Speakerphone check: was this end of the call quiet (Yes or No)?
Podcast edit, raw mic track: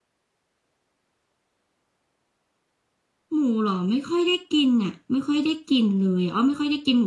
No